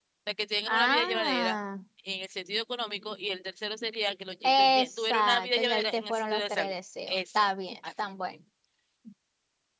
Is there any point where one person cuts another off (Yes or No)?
Yes